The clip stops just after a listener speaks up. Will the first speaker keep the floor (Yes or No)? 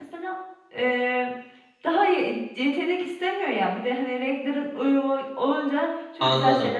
No